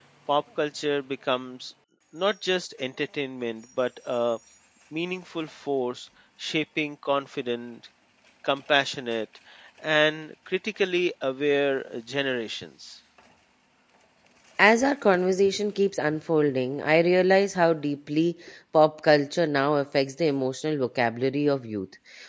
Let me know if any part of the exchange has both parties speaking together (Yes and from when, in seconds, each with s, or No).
No